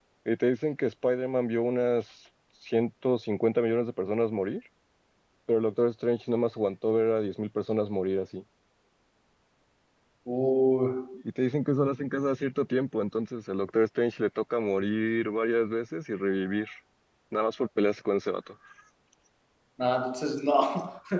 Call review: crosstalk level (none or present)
none